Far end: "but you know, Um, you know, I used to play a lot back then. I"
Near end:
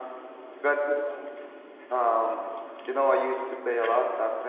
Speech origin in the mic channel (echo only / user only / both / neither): echo only